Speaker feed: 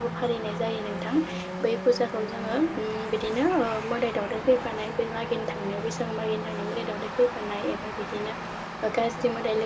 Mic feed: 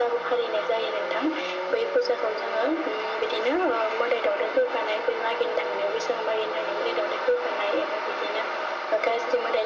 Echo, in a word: present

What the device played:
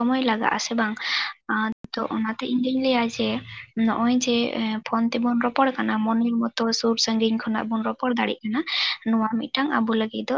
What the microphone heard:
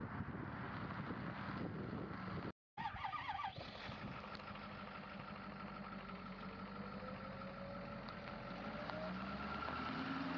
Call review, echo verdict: none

